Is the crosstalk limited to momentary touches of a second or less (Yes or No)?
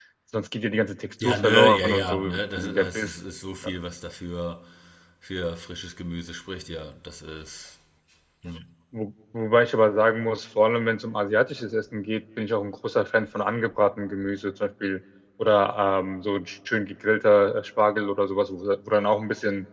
No